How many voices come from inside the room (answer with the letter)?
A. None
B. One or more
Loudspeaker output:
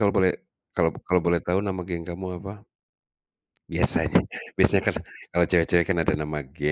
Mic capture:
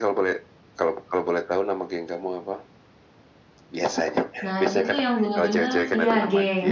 B